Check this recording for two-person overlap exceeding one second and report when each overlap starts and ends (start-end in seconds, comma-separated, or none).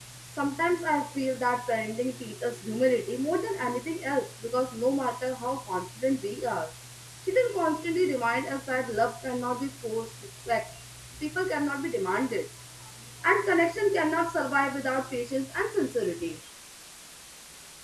none